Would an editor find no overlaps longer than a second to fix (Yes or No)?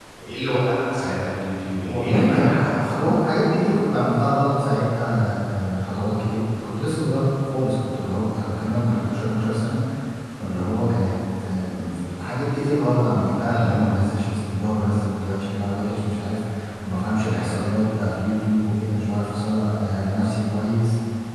No